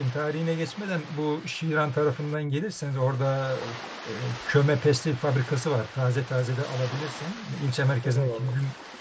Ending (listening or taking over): taking over